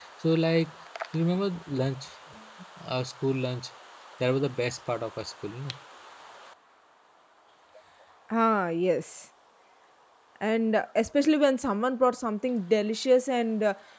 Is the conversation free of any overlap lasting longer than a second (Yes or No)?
Yes